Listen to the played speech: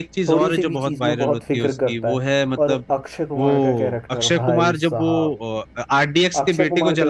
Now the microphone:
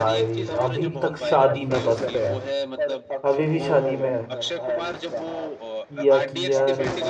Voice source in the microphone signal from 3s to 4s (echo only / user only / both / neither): both